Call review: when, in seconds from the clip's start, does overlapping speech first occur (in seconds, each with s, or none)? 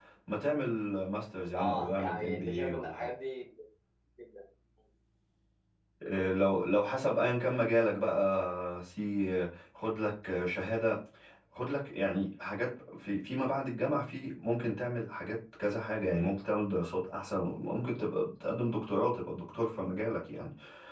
1.5 s